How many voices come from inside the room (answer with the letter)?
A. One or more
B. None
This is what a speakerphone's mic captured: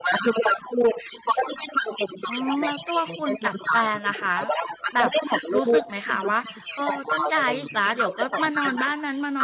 A